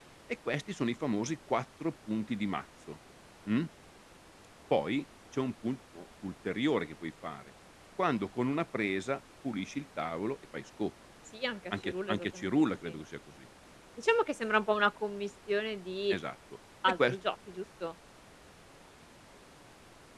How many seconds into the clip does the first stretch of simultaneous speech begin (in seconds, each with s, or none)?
11.8 s